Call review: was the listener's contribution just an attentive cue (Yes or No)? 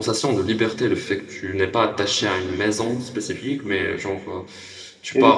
No